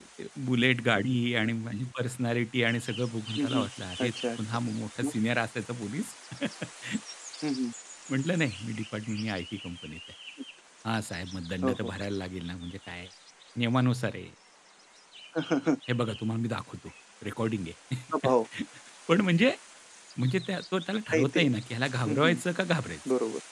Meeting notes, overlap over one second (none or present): none